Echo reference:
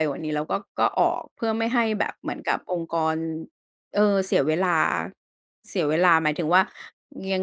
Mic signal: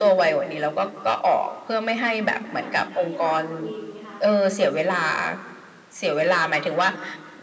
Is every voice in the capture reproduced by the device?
No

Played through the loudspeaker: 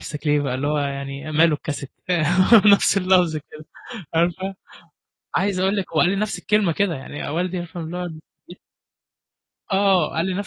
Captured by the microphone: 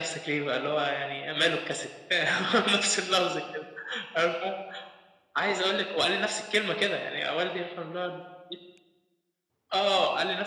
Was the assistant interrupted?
No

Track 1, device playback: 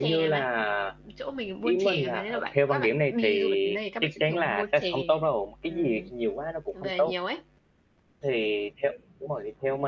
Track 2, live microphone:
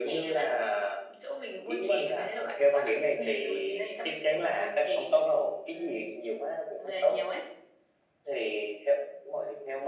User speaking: No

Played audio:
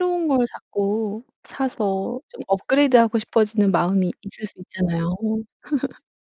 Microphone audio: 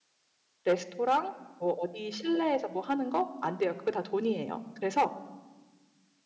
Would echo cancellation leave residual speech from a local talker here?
Yes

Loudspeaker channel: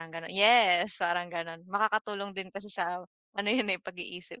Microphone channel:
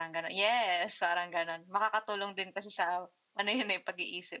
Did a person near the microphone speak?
No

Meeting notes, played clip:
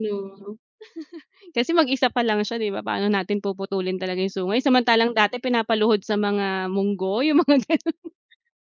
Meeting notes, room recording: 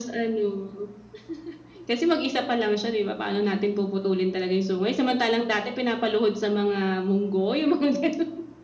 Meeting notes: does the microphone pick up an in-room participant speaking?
No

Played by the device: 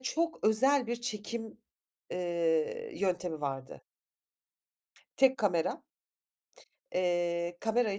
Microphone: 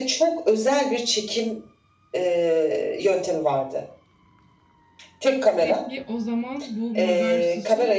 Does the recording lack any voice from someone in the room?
No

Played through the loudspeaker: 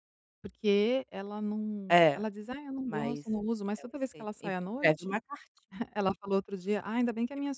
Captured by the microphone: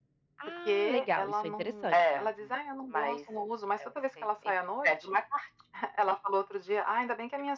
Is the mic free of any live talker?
No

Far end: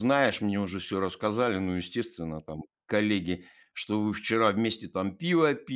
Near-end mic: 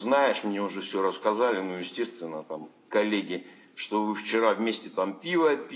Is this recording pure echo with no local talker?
Yes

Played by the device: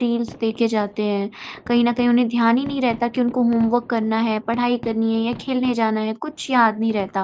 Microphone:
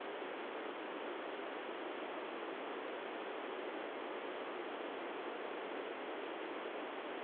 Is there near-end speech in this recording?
No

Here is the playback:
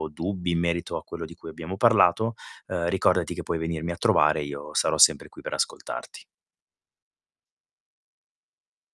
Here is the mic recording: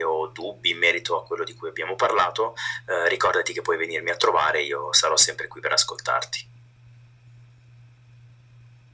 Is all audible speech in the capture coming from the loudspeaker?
Yes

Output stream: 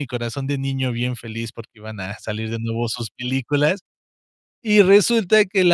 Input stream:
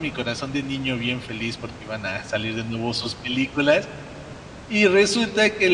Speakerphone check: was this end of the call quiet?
Yes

